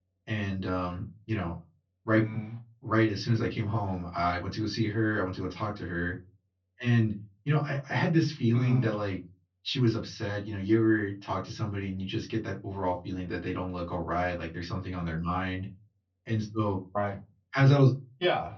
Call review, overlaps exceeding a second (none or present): none